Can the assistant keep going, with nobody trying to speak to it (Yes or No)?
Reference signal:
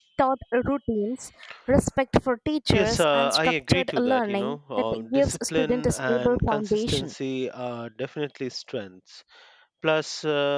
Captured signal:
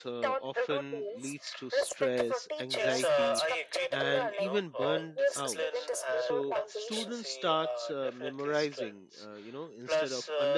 No